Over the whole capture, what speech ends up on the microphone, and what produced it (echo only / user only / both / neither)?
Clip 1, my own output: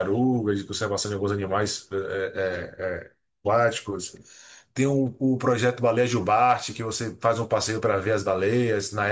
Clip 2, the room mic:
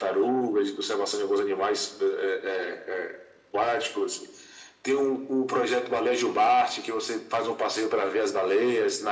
echo only